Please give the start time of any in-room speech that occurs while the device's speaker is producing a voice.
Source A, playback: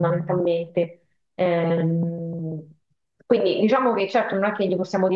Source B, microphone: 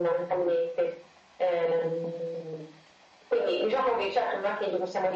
none

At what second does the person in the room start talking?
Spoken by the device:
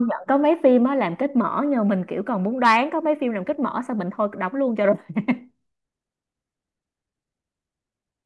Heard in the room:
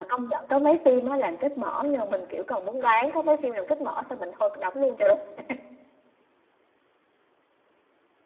none

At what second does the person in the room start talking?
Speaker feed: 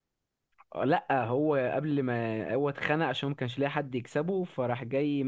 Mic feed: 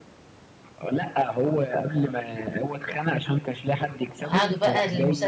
4.2 s

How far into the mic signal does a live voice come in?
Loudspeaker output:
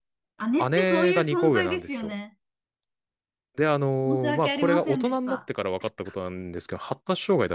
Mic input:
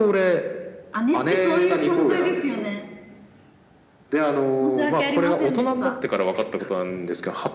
none

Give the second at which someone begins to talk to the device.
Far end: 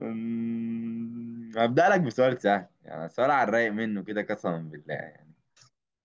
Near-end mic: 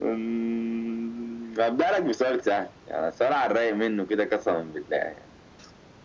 none

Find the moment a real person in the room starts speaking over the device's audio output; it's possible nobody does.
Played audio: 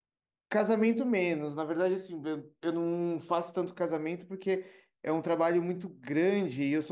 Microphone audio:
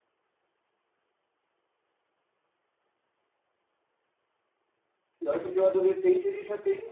5.2 s

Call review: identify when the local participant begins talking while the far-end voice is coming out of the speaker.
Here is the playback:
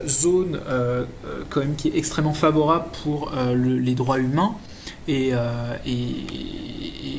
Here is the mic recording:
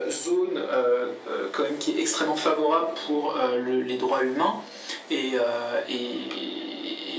none

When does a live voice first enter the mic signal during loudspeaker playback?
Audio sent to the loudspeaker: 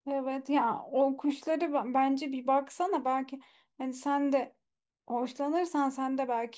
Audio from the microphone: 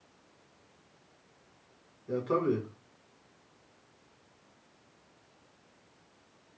2.0 s

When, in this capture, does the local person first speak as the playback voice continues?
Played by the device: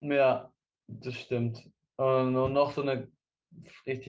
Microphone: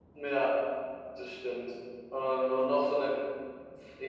none

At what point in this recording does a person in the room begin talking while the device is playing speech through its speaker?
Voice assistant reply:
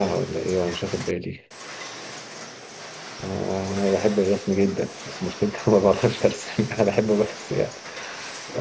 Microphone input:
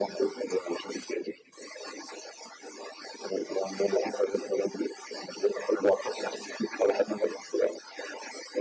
none

